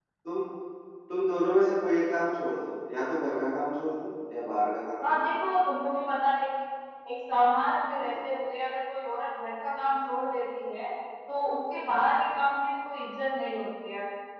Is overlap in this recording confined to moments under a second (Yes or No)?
Yes